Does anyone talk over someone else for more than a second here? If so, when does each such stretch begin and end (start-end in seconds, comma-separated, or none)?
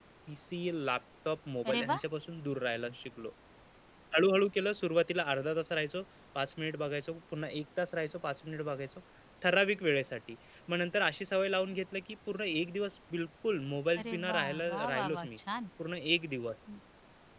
14.0-15.4